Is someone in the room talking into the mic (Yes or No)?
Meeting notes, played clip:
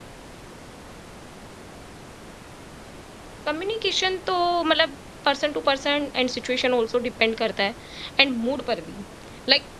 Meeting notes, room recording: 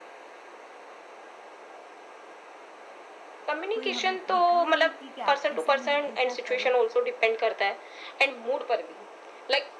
Yes